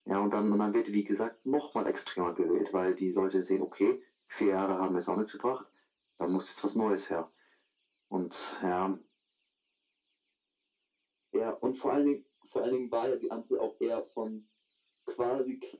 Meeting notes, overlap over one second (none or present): none